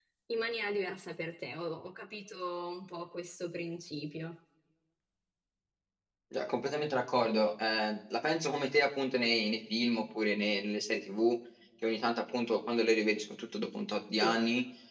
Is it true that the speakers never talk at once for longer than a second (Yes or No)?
Yes